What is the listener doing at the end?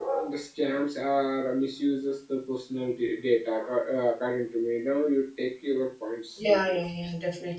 taking over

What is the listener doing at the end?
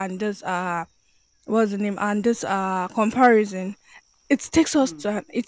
listening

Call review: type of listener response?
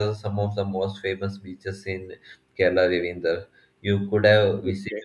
taking over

